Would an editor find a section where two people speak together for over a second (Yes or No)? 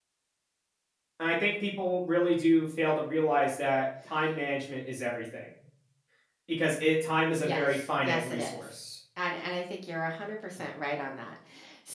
Yes